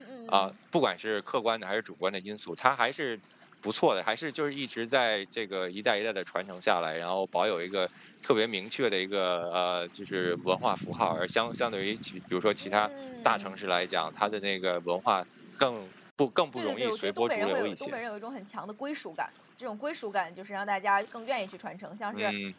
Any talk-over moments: Yes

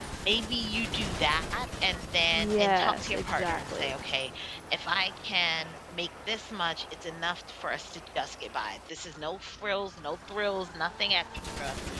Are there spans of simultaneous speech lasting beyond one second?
Yes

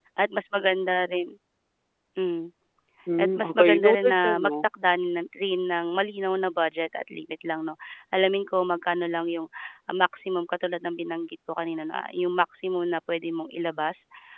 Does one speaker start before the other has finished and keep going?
Yes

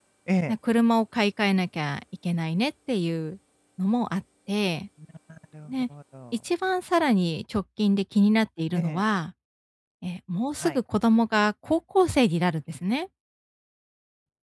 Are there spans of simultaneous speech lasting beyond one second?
No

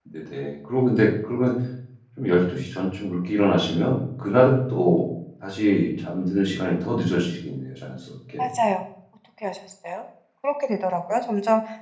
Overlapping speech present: No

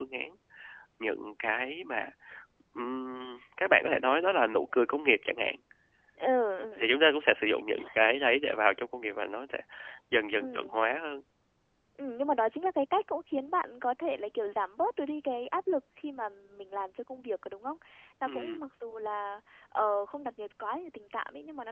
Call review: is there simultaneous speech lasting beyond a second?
No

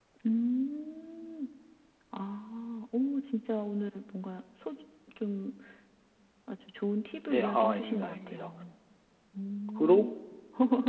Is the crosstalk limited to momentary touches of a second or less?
No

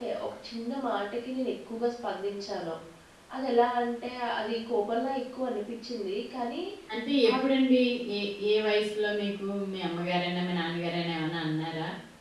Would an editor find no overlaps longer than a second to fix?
Yes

